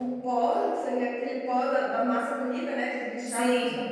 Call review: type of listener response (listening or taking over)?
listening